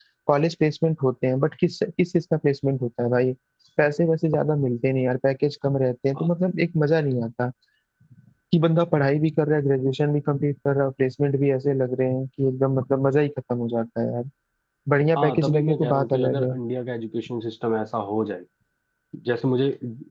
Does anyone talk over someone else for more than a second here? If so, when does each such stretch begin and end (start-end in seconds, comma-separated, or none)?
15.2-16.5